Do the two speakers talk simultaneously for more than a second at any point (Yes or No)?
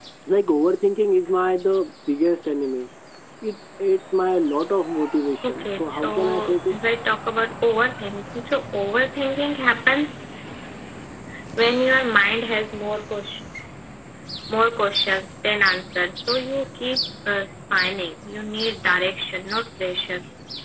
Yes